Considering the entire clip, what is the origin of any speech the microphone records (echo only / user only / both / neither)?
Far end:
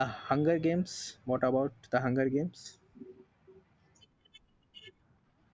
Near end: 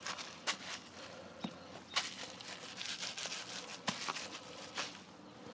neither